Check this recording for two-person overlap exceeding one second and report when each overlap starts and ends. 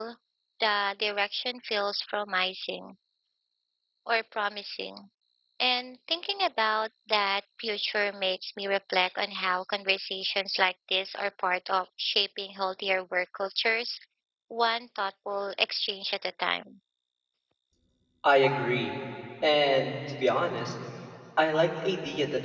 none

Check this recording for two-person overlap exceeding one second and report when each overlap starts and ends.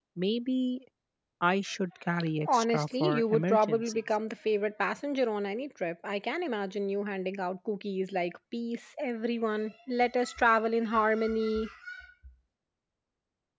2.5-4.0

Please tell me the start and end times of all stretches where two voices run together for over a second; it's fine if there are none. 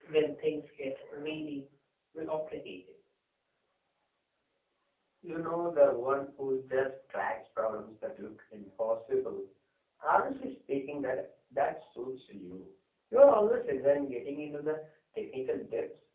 none

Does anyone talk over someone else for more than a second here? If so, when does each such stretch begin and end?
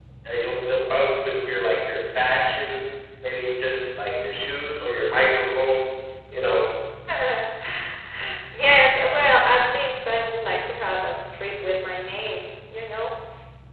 none

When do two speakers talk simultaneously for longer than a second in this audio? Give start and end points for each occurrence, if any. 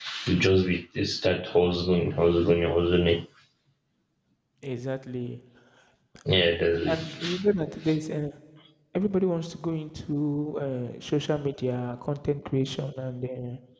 none

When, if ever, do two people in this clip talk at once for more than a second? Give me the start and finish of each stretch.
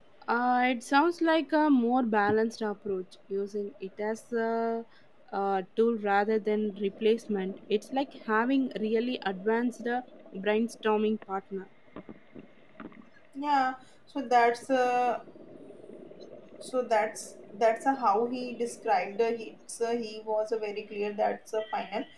none

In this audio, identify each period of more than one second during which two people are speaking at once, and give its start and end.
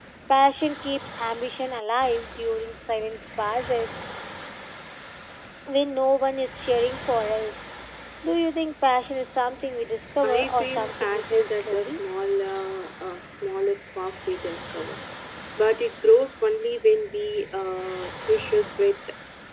10.2-12.0

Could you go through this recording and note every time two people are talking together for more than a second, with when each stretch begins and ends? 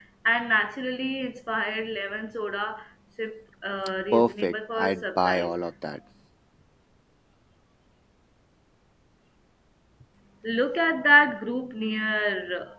4.1-5.5

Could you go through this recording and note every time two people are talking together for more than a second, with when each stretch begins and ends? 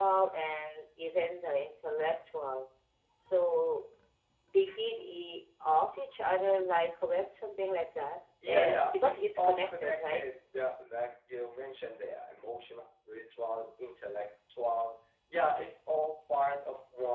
8.5-10.2

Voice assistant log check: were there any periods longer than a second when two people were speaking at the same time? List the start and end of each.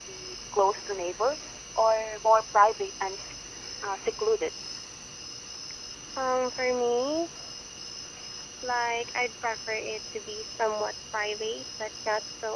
none

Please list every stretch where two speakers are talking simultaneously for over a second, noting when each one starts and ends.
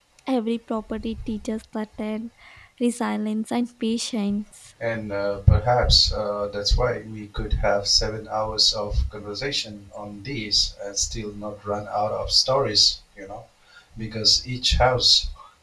none

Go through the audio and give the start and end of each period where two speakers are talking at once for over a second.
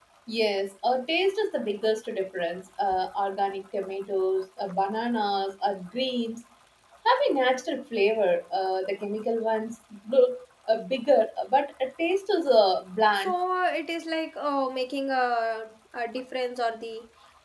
none

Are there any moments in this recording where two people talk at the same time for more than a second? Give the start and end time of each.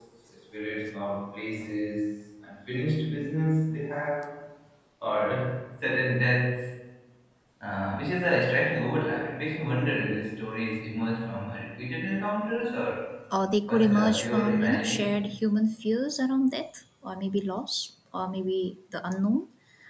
13.7-15.2

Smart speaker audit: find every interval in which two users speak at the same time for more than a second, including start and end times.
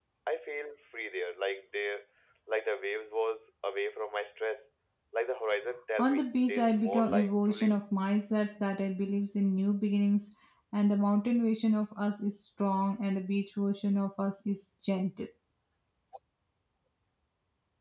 6.0-7.8

